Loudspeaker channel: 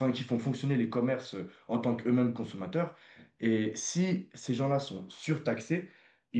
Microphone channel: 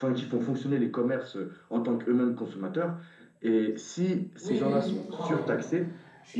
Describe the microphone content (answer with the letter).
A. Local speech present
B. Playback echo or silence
A